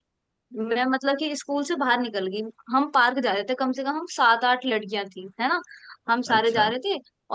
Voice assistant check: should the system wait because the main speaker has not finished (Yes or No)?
Yes